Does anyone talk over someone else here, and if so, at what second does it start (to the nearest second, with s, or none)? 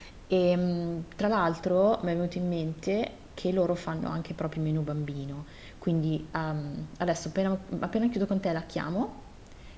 none